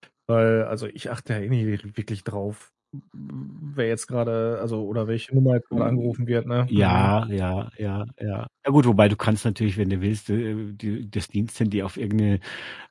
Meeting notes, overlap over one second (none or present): none